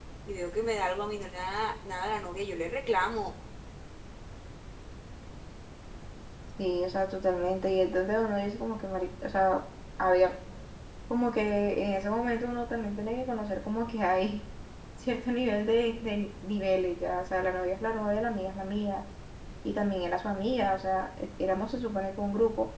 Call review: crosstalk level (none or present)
none